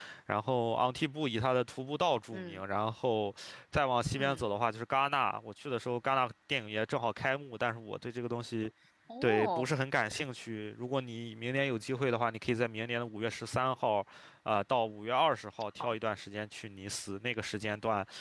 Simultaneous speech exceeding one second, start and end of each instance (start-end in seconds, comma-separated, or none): none